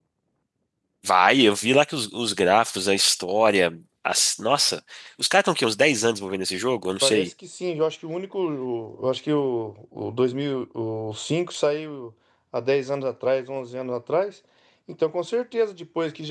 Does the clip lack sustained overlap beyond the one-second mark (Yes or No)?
Yes